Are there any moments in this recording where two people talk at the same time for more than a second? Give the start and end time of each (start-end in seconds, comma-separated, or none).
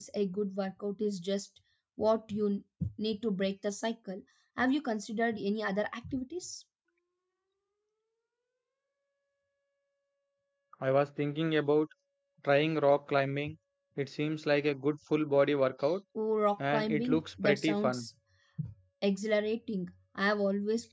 16.7-18.1